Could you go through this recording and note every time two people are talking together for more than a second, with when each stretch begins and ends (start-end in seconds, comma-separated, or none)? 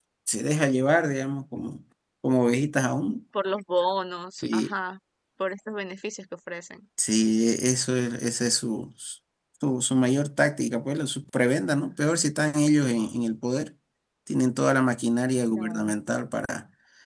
none